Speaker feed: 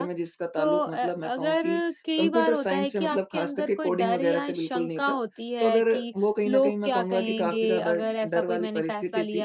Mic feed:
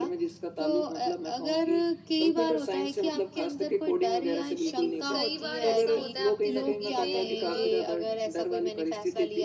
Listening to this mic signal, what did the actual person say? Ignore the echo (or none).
लेकिन कई बार ऐसा होता है आपकी जिंदगी में अ,